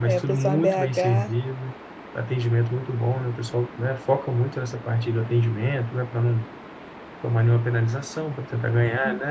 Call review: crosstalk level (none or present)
present